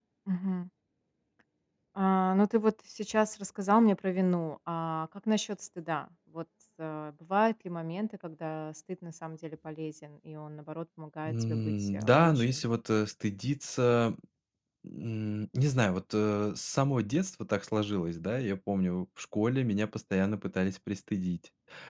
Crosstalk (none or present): present